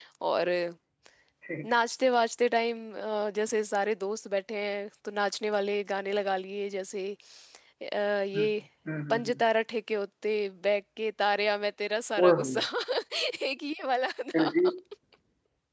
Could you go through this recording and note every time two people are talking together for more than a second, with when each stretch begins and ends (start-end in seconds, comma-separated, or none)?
none